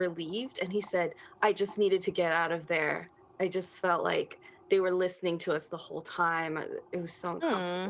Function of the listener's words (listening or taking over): taking over